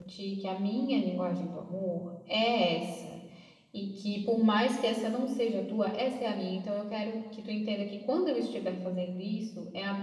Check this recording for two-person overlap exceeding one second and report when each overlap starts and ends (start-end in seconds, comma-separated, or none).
none